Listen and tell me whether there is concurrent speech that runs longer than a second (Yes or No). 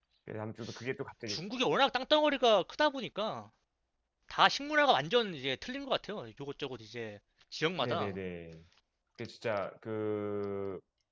No